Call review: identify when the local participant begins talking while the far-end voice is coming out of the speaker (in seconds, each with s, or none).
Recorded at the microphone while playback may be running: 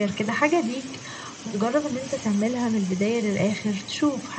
none